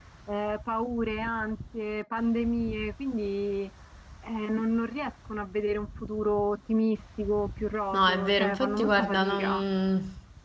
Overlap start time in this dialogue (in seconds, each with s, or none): 7.9 s